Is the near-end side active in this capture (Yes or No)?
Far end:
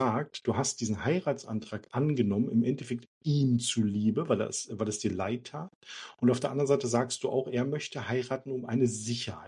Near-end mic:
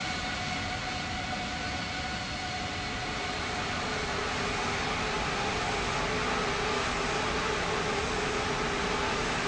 No